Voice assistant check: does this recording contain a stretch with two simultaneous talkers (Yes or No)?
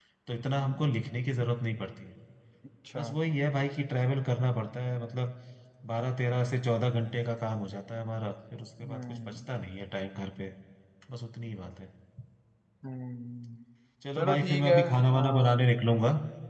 Yes